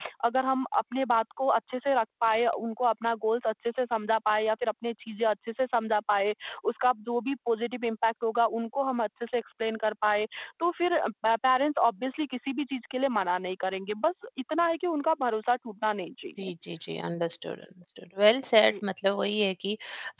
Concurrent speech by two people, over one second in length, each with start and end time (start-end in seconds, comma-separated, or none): none